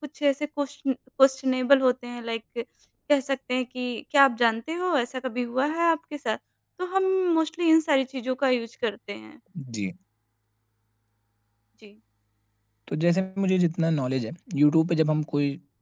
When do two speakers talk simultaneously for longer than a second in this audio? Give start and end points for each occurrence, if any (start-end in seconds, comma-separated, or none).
none